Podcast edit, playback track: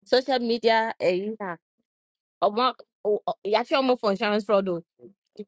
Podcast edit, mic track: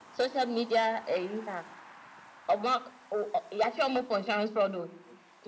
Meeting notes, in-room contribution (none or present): none